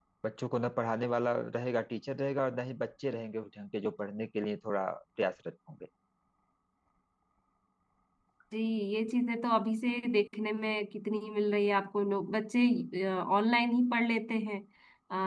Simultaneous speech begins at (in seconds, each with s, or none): none